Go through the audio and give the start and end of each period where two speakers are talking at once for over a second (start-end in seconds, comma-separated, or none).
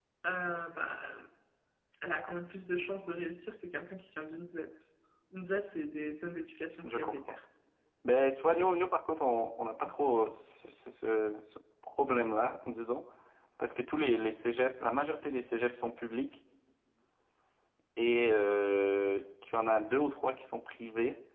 none